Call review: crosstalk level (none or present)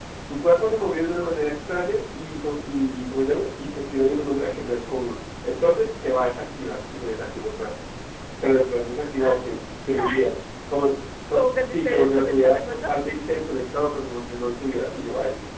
present